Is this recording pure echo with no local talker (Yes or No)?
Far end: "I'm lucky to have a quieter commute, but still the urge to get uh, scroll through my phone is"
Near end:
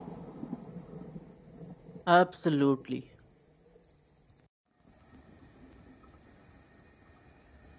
No